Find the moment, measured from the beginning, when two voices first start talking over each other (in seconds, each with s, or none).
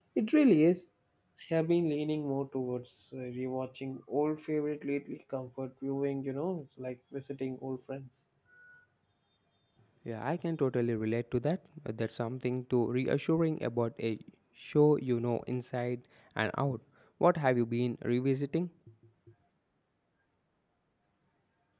none